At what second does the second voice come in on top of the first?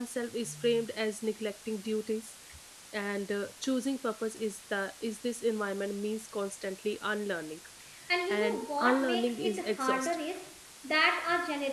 8.3 s

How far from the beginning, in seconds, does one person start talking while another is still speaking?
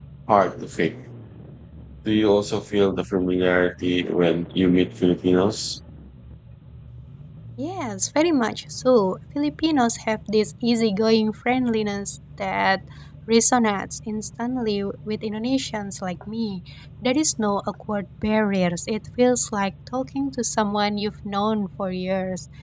none

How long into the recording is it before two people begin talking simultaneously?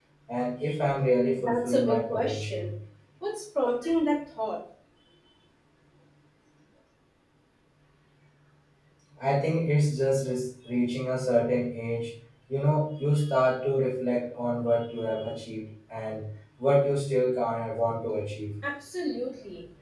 1.3 s

